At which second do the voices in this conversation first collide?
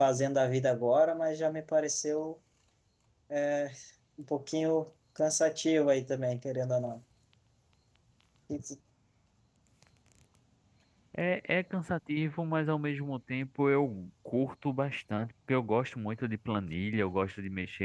none

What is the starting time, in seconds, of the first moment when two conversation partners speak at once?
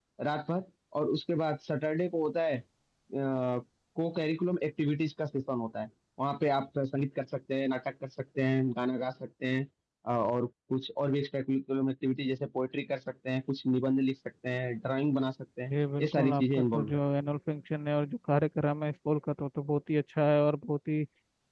15.7 s

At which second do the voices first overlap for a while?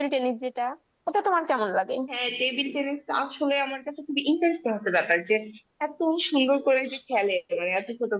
none

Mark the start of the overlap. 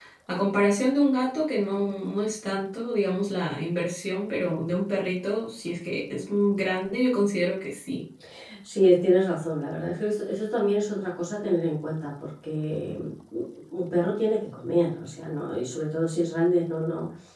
none

